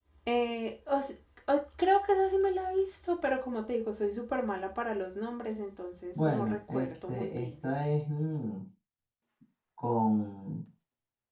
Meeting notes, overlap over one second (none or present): present